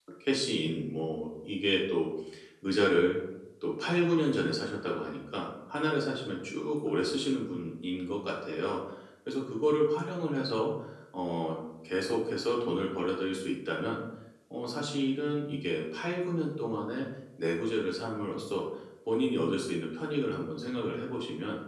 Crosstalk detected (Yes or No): No